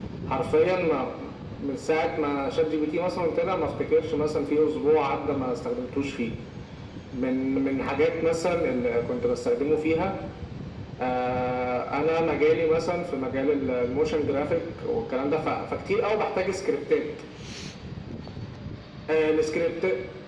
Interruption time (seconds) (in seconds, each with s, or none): none